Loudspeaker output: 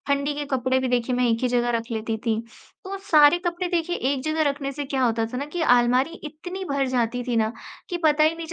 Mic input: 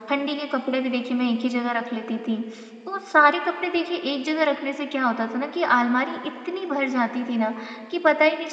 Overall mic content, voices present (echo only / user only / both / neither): echo only